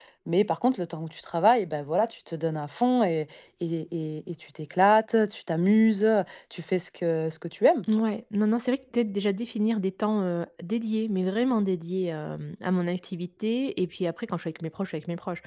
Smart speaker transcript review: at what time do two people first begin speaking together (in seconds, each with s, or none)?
none